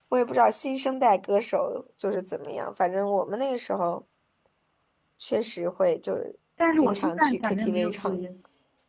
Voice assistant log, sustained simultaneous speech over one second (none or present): present